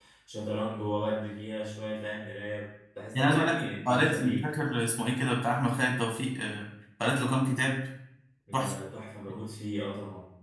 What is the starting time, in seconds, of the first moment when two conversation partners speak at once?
3.1 s

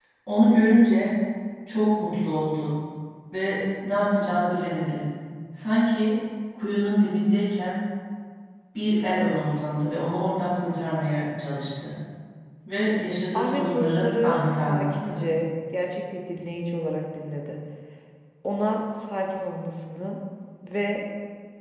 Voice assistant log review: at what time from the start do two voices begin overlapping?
13.3 s

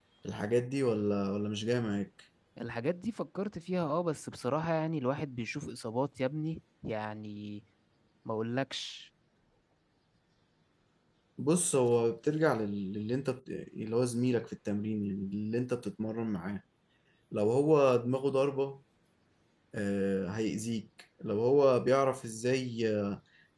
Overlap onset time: none

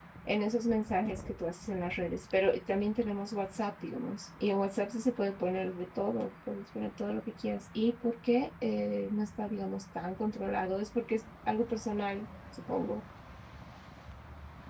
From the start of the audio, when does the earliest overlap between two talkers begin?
none

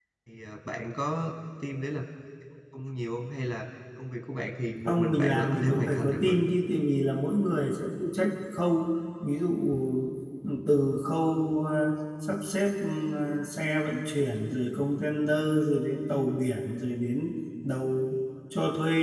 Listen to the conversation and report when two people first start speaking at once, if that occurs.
4.8 s

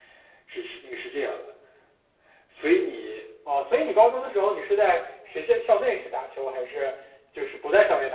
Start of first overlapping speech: none

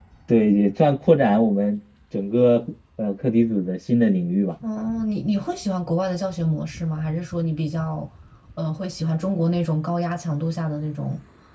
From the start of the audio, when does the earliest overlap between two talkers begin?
none

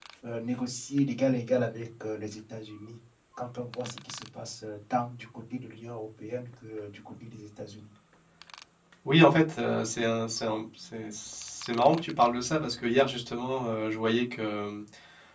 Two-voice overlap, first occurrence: none

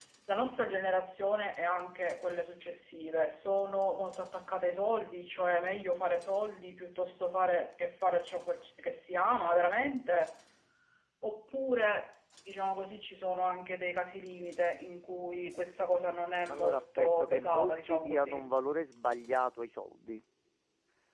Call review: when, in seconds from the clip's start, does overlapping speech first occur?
16.5 s

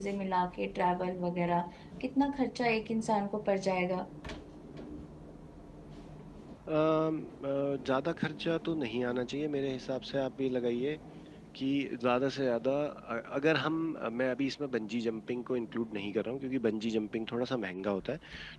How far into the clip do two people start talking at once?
none

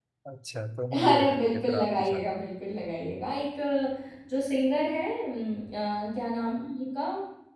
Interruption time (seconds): 1.1 s

